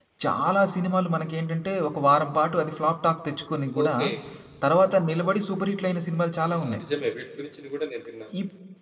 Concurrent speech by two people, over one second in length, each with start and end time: none

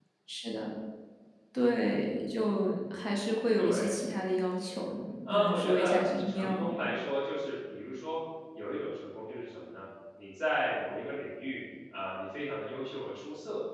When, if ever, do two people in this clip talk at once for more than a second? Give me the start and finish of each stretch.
5.3-6.7

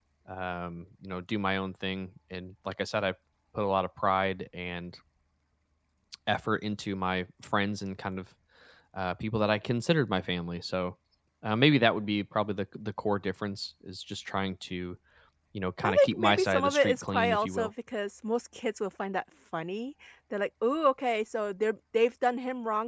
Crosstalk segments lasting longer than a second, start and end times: 15.8-17.7

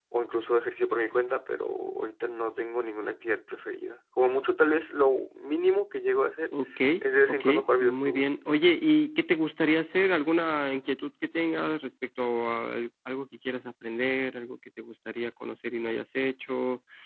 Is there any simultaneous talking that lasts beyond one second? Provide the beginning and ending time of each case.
7.0-8.2

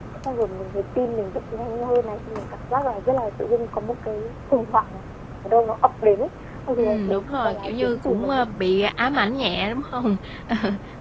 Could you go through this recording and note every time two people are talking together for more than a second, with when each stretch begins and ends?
6.8-8.4

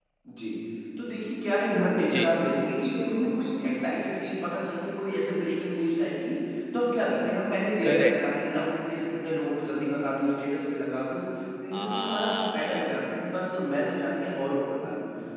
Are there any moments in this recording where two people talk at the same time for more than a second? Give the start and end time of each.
11.7-12.9

